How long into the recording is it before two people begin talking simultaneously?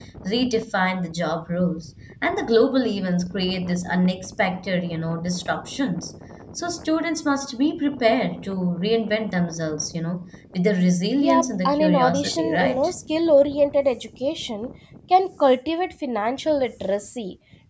11.2 s

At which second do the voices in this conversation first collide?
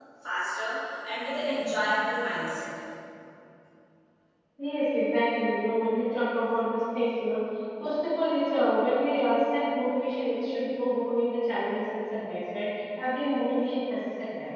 none

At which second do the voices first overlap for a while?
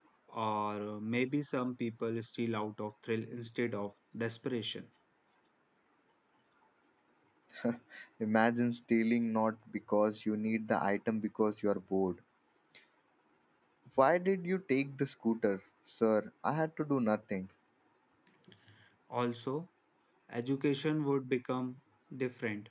none

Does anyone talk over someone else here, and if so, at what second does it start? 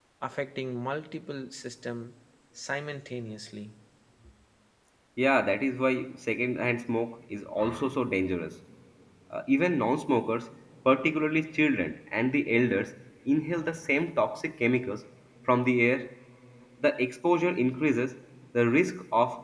none

